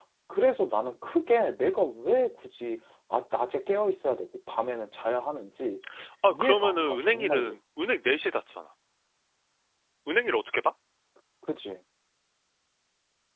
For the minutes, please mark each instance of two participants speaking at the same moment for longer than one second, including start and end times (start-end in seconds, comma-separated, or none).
6.3-7.6